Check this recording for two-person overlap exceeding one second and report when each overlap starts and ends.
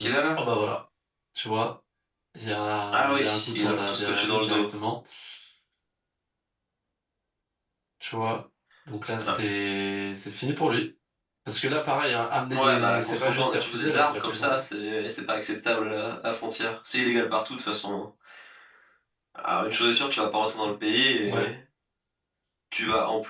2.9-4.6, 12.5-14.6

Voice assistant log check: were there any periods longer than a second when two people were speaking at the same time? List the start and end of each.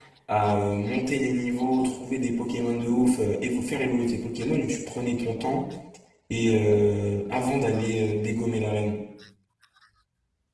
none

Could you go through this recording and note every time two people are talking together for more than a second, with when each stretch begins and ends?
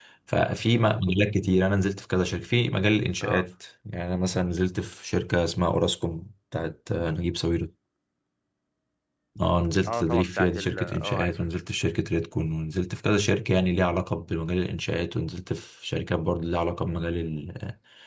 9.9-11.3

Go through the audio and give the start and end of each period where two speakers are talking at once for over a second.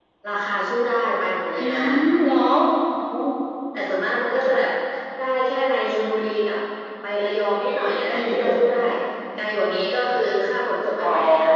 7.5-8.8

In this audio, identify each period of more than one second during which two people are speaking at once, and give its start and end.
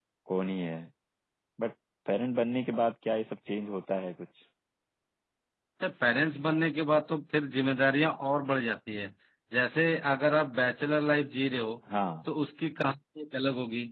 none

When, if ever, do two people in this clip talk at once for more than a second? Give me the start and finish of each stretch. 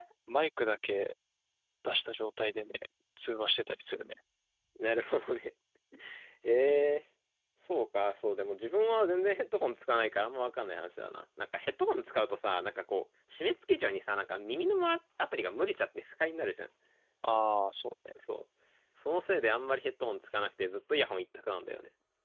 none

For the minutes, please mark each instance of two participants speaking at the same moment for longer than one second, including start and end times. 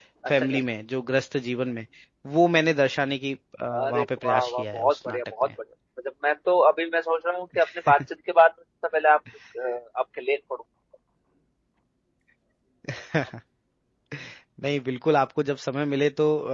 3.8-5.5

